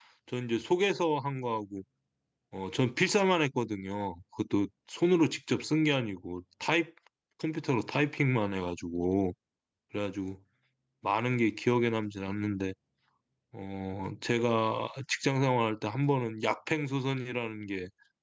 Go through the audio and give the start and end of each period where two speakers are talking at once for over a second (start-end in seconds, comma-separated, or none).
none